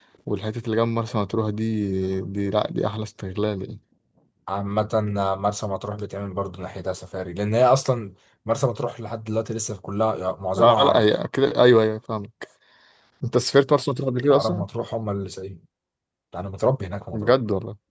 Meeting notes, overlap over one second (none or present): none